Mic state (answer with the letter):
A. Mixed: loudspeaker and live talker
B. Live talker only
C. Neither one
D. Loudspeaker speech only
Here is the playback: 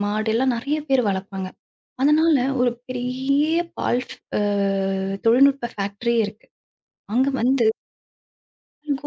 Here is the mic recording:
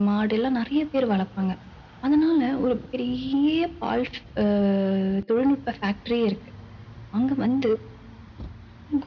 D